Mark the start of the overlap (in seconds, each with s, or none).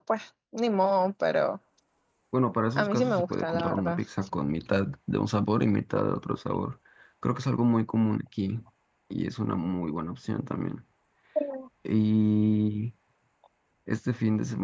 2.8 s